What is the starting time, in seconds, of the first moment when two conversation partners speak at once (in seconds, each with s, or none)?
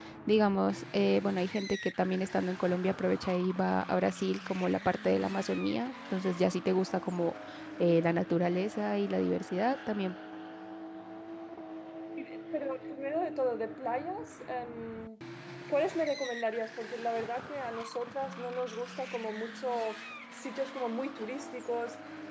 none